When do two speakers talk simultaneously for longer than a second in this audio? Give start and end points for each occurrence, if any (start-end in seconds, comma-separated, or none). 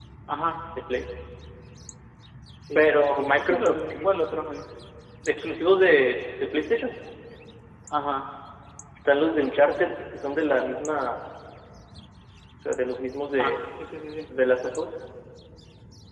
2.8-4.0